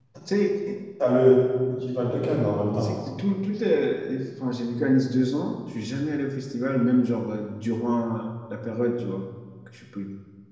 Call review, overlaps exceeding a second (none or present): none